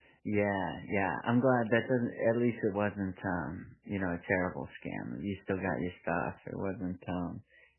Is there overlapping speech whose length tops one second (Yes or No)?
No